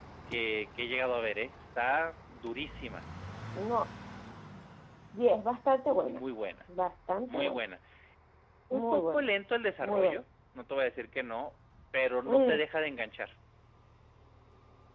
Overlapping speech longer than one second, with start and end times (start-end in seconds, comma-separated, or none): none